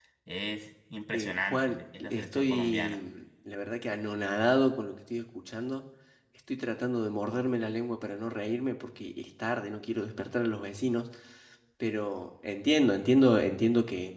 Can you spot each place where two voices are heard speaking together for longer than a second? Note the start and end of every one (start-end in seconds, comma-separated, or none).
1.1-3.0